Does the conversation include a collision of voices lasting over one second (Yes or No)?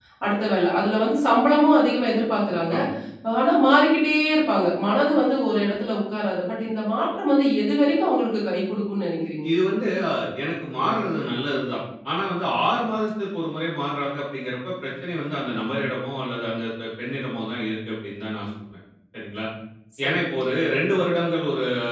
No